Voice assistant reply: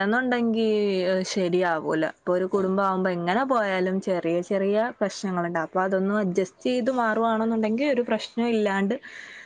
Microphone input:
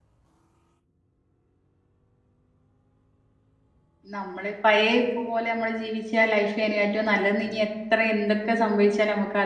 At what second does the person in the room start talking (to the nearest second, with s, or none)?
4 s